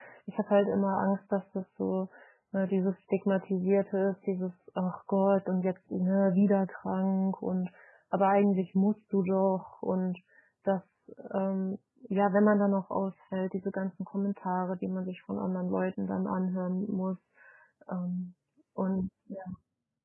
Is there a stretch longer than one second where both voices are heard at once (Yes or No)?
No